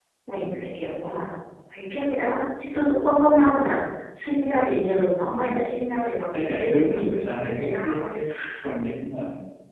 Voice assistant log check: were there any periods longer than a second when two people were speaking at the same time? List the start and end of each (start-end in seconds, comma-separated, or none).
6.3-8.1